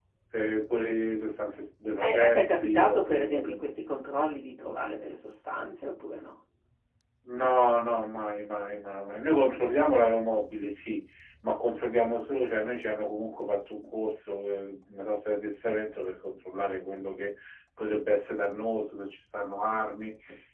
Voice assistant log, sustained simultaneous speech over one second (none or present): present